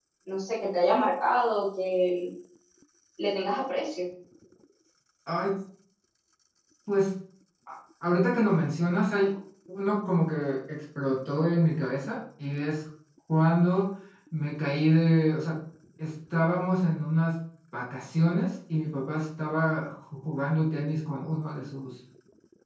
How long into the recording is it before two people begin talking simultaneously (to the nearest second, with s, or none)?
none